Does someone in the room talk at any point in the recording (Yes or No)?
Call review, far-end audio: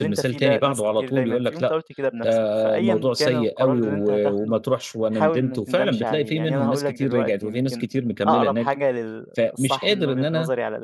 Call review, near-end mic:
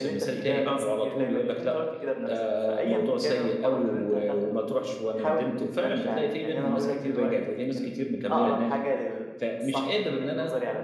No